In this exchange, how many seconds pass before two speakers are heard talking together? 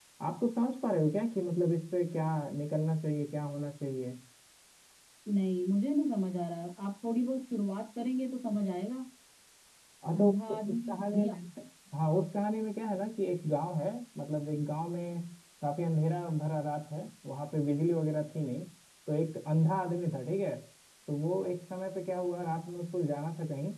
10.2 s

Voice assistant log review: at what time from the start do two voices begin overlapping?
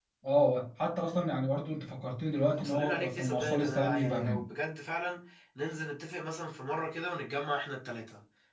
2.6 s

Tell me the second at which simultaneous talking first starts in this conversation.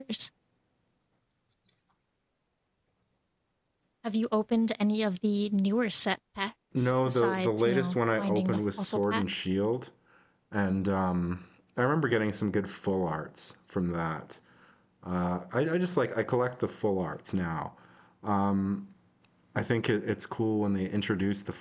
6.8 s

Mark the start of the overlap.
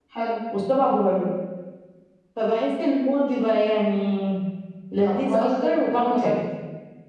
5.0 s

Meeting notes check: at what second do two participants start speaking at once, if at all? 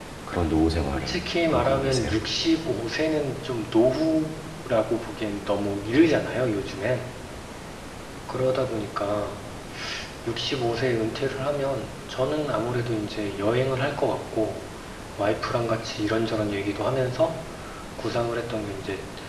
0.9 s

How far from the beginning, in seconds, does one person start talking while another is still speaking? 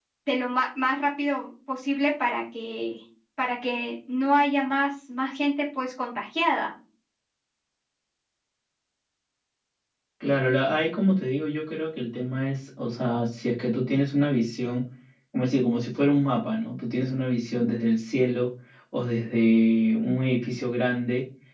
none

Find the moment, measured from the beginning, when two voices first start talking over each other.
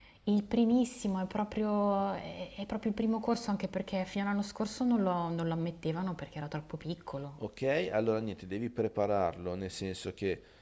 none

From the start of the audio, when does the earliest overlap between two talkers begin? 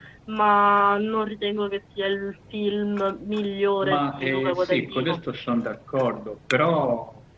3.8 s

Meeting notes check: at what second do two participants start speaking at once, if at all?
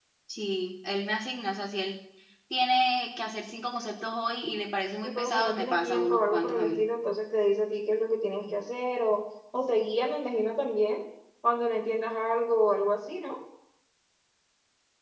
5.0 s

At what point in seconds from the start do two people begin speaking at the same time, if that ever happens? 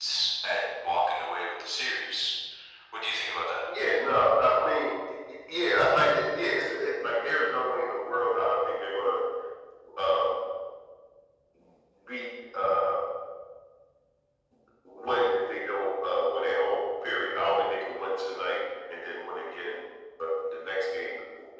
none

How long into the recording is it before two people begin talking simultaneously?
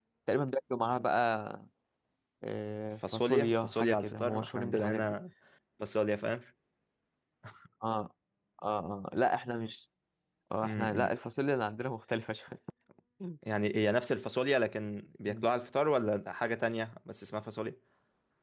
3.1 s

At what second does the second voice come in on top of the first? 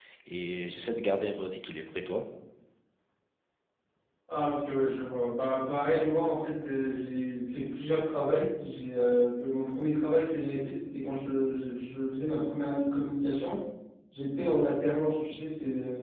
none

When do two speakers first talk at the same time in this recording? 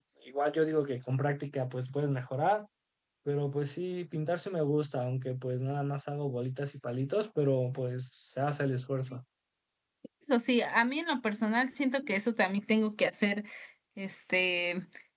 none

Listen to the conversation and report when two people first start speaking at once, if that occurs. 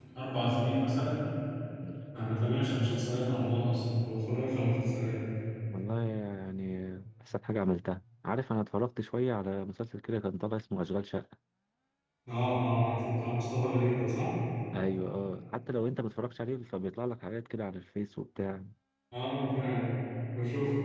none

